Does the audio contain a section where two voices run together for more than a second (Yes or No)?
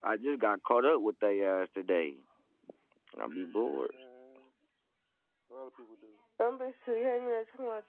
No